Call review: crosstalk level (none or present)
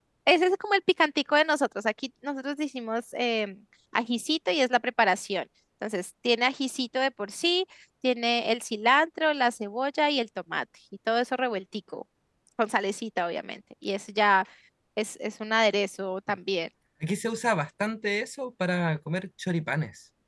none